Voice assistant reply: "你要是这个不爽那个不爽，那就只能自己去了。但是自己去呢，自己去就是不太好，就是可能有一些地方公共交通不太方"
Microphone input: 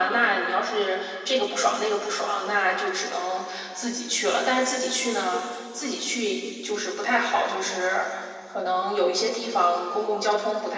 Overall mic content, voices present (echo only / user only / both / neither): echo only